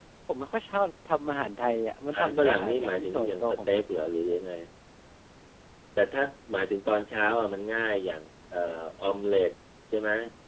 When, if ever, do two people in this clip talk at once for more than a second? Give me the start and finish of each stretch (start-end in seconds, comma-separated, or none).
2.1-3.8